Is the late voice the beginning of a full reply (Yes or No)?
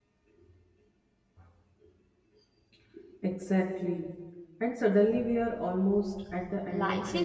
Yes